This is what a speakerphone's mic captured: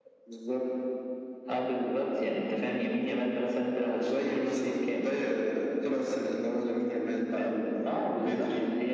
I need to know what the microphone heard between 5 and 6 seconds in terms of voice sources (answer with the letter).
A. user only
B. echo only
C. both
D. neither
B